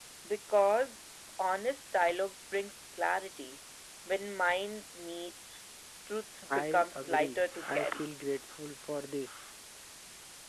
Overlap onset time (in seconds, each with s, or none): 6.5 s